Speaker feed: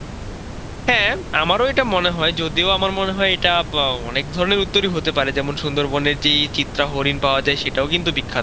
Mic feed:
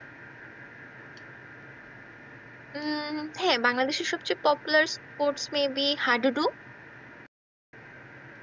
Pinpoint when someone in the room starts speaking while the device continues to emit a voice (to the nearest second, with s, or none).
3 s